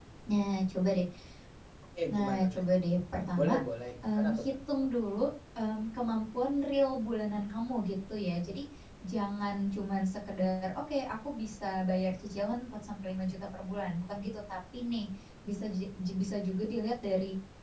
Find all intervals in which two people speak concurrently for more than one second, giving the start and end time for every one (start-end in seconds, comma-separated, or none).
none